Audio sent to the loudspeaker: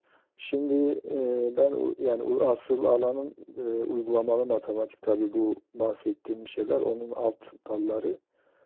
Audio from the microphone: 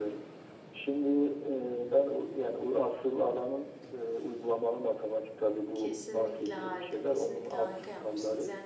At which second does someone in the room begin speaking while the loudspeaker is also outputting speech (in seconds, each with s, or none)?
5.7 s